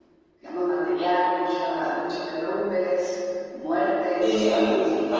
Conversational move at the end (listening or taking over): taking over